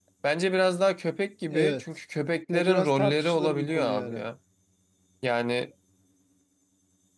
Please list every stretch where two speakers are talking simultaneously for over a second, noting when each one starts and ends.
2.5-4.2

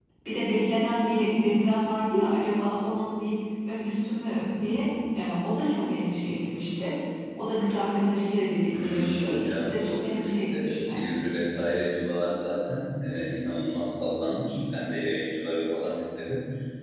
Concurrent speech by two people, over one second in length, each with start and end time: 8.7-10.1

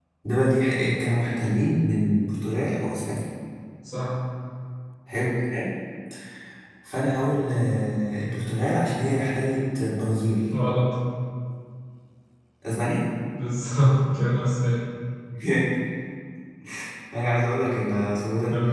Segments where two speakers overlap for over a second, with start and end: none

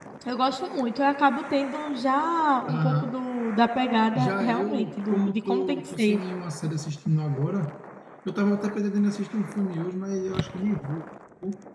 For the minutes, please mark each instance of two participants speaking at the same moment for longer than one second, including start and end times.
4.2-6.2

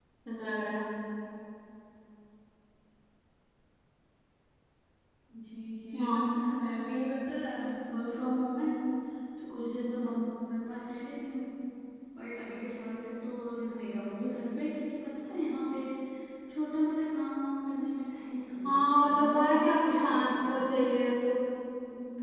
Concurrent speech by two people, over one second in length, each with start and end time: 18.7-20.8

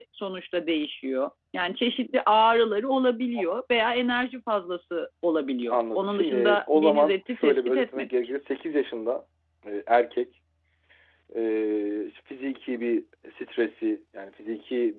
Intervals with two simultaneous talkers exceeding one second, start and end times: 5.7-8.1

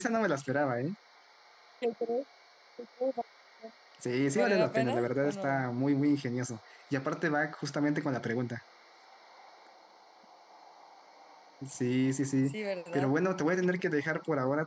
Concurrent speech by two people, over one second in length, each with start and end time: 4.3-5.6

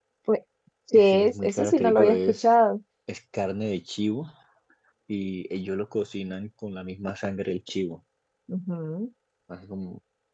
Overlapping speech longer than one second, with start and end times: 0.9-2.4

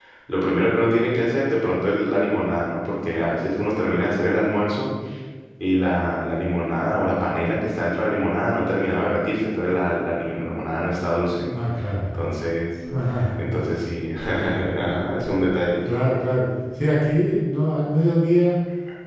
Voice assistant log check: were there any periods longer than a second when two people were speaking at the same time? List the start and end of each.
none

